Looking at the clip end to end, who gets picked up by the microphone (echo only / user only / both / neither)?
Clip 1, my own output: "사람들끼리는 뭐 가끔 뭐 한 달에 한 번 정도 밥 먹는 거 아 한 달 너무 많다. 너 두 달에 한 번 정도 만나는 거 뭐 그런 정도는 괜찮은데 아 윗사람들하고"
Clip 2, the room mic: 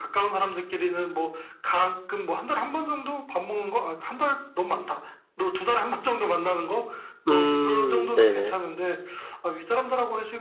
both